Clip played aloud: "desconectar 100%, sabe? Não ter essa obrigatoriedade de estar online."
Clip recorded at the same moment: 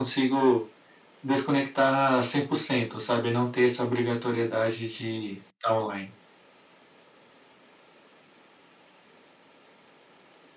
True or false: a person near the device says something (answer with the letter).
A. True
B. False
B